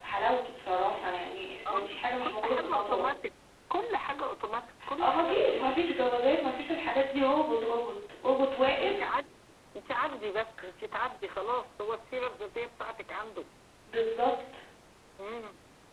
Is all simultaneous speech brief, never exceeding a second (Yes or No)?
No